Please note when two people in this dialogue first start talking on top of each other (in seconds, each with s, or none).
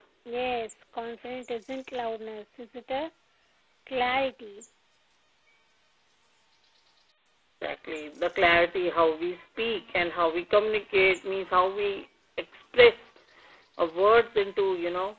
none